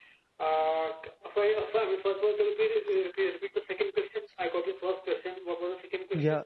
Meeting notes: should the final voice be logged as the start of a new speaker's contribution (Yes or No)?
Yes